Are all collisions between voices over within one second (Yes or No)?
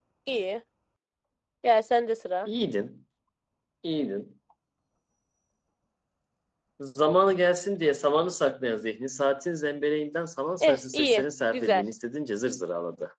No